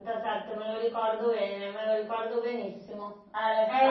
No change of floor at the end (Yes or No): No